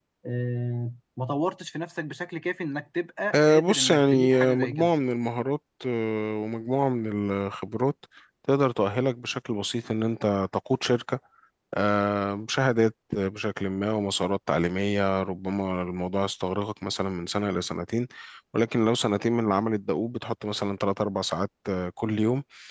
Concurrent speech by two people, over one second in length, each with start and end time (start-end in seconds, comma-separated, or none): 3.3-4.9